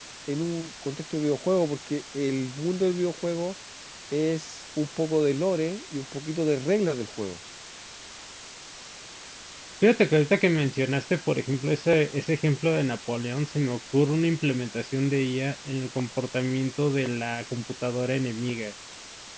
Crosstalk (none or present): none